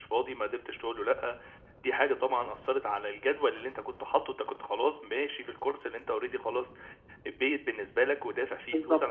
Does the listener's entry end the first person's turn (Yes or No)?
No